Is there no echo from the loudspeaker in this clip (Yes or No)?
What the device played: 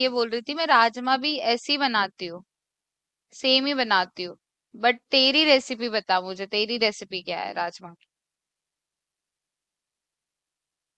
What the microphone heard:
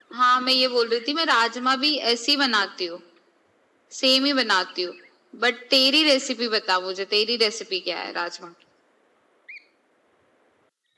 No